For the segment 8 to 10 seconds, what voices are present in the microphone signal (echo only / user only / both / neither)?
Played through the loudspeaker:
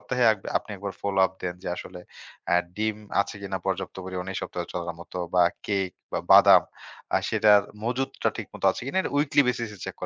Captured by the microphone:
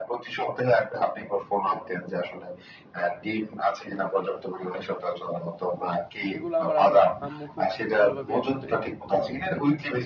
both